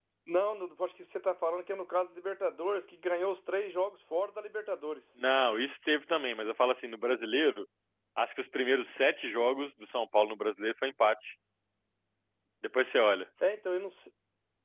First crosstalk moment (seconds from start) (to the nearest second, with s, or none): none